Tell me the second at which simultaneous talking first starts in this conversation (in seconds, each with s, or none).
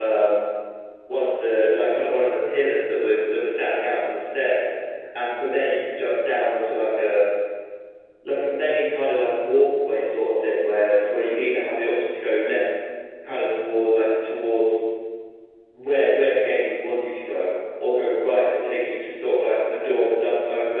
none